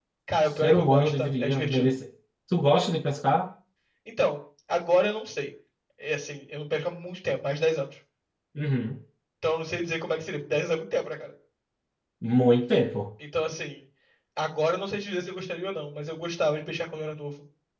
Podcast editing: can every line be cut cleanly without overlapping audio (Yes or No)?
No